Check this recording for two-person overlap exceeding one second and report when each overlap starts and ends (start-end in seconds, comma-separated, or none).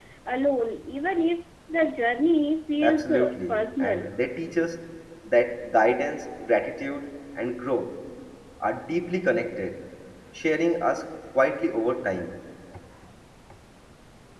2.8-4.1